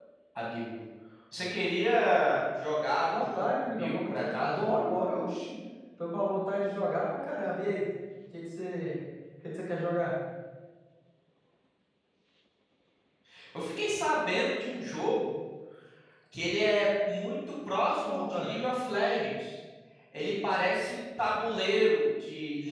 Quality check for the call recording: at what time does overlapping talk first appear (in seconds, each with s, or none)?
3.1 s